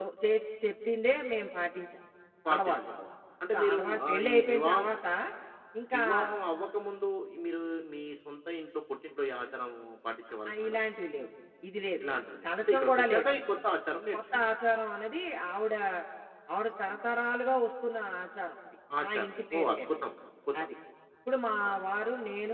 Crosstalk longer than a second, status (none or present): present